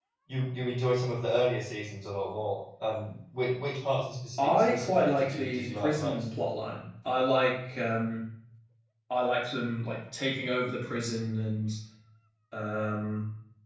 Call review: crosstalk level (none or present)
present